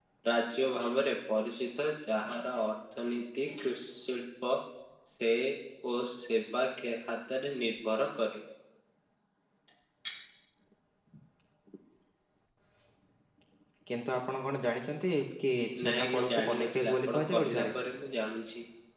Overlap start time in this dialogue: 16 s

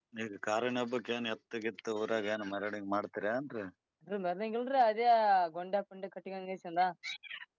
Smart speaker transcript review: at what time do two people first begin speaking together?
none

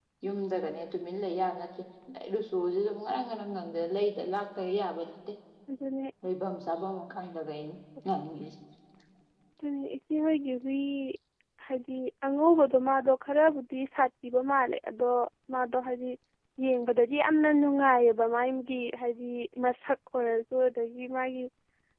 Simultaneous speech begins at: none

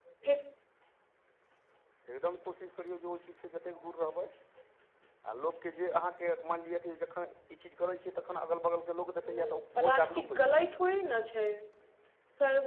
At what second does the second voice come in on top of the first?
9 s

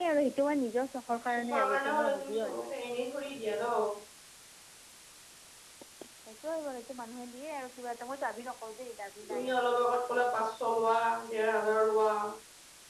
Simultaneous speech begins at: 2 s

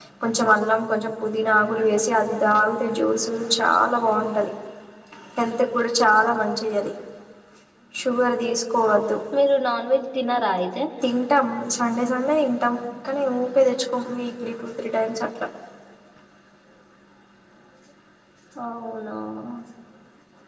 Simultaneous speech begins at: none

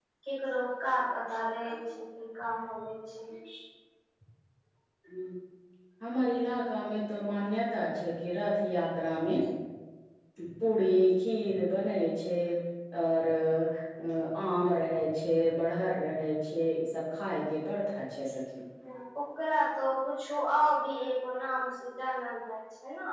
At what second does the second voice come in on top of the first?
none

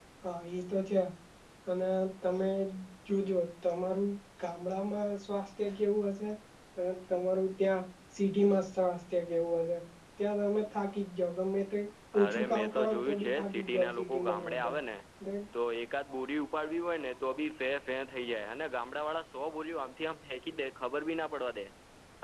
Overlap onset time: 12 s

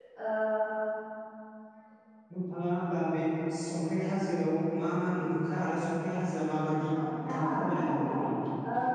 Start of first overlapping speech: 7 s

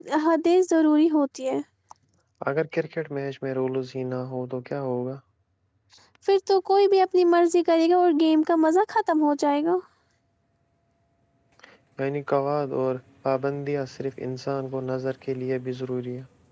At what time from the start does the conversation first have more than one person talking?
none

